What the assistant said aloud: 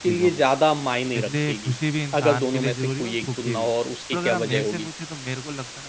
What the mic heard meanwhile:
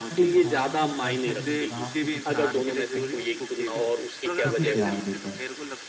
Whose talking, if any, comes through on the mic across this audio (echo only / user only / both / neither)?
both